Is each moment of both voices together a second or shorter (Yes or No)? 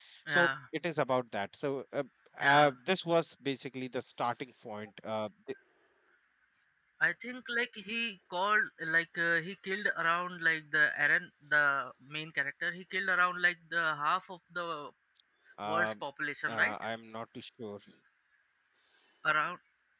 Yes